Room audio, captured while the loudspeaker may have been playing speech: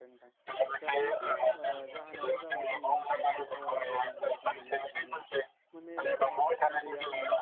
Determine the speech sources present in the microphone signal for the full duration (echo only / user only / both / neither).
both